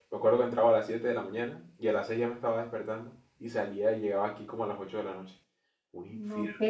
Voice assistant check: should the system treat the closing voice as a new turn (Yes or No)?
Yes